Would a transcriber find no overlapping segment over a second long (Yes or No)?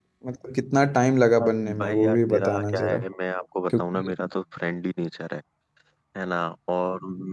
No